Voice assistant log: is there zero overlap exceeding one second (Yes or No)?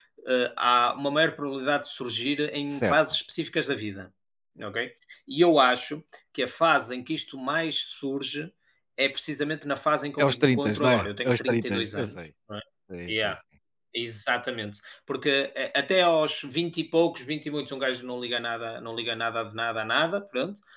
No